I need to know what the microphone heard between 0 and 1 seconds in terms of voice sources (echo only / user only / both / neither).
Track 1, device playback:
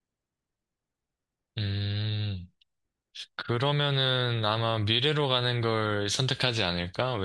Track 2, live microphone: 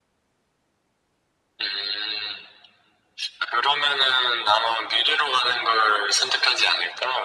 neither